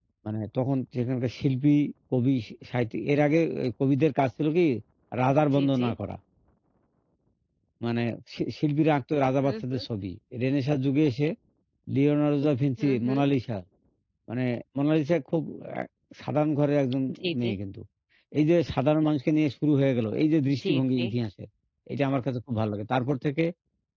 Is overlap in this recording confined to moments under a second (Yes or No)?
Yes